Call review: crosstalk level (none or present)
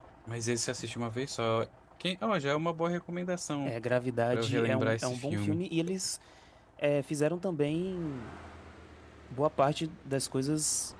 present